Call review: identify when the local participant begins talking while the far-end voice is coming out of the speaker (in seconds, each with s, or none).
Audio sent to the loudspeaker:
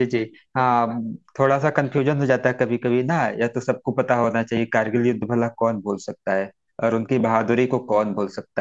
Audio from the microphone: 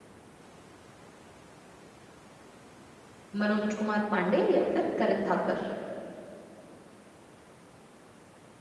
3.4 s